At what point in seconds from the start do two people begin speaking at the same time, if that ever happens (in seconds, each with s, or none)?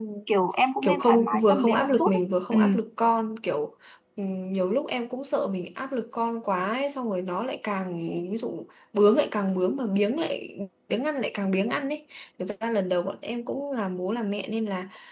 0.8 s